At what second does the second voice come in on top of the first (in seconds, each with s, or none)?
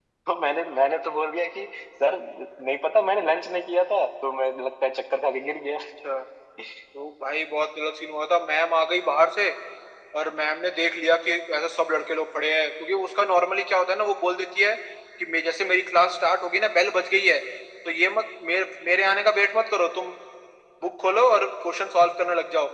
none